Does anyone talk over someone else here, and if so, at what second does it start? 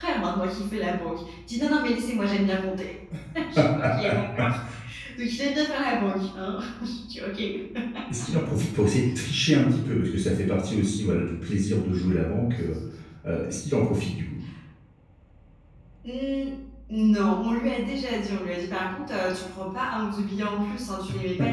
none

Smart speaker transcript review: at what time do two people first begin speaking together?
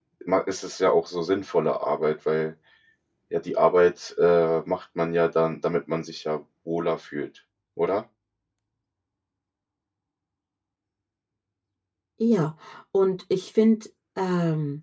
none

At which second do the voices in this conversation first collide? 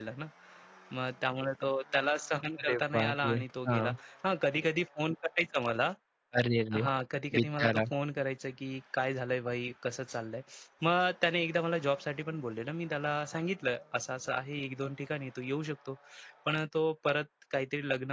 2.6 s

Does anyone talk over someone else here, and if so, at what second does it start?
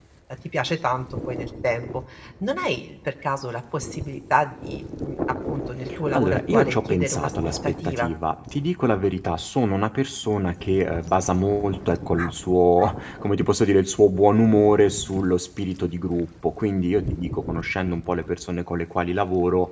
6.1 s

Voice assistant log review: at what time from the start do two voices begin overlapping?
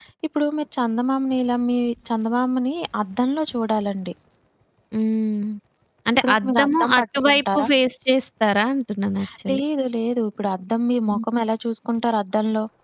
6.2 s

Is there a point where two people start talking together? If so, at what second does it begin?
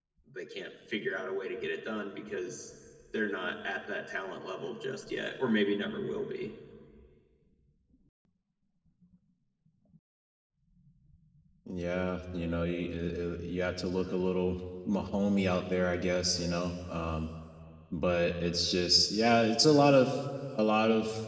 none

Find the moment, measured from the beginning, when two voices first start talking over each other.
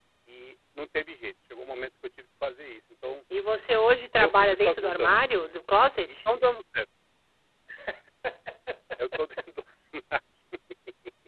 4.2 s

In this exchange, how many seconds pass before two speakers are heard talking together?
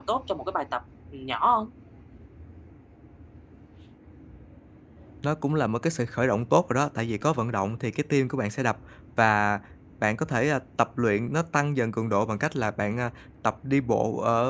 none

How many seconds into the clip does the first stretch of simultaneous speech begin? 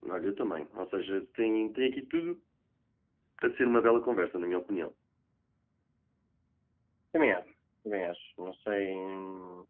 none

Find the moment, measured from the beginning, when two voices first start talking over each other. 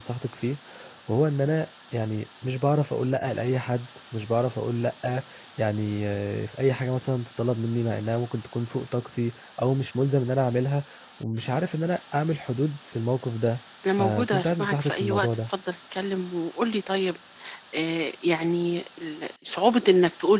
13.8 s

